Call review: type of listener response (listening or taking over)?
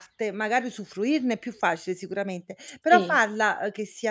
listening